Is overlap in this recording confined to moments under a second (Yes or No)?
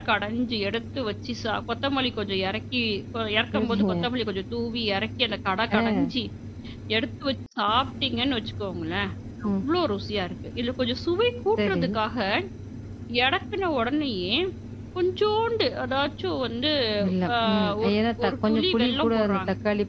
No